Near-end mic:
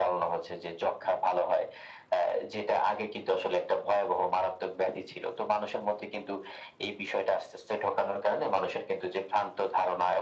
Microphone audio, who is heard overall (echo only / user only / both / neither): echo only